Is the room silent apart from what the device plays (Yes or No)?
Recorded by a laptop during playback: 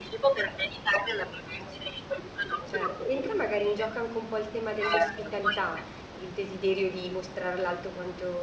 No